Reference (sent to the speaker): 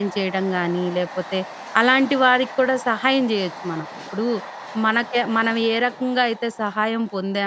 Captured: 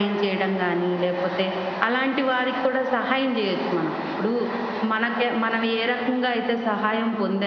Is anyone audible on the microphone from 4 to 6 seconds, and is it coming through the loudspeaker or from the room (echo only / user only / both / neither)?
echo only